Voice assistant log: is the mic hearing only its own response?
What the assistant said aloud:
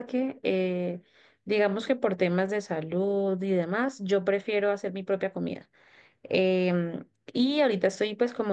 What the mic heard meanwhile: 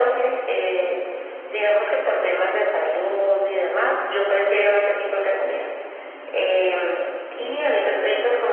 Yes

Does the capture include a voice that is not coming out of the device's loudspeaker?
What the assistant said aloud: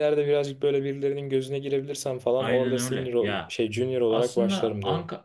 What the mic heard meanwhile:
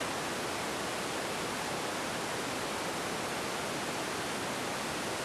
No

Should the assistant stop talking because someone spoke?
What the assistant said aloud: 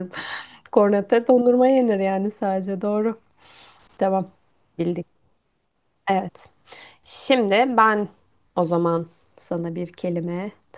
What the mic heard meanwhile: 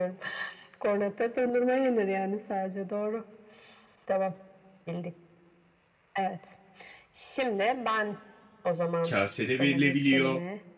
Yes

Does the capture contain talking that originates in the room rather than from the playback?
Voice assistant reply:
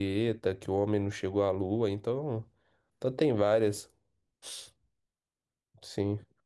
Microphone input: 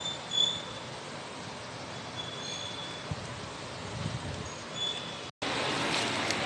No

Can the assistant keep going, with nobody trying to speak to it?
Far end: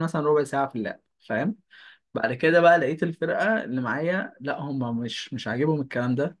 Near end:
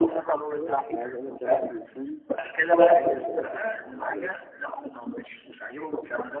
No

